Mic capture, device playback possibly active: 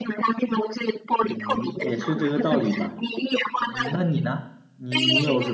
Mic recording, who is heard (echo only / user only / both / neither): both